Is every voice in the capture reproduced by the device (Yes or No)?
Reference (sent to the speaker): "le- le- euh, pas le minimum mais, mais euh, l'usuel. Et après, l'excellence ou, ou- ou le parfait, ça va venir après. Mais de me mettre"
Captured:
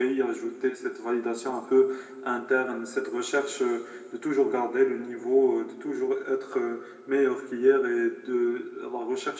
No